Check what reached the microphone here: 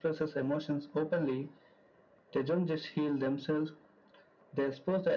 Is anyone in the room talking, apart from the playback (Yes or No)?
No